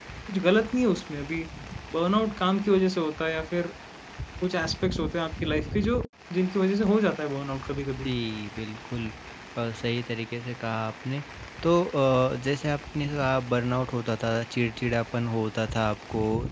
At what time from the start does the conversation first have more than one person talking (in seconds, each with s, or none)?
none